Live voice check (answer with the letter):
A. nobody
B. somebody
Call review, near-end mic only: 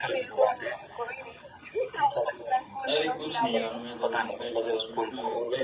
B